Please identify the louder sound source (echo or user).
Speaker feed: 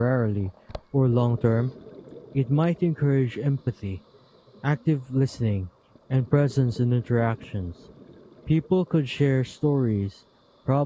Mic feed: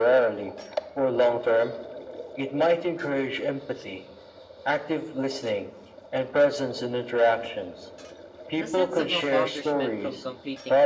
echo